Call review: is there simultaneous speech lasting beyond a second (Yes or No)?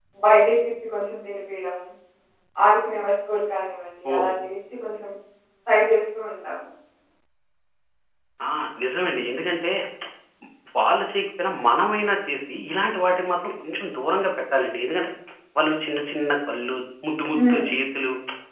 No